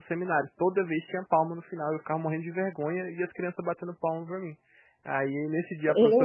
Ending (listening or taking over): listening